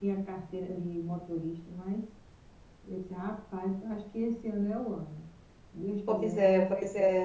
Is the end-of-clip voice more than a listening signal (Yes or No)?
Yes